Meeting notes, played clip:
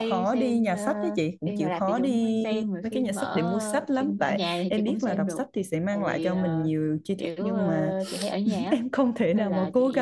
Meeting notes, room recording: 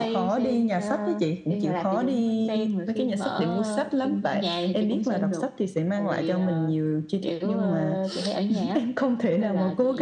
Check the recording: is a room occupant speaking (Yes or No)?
No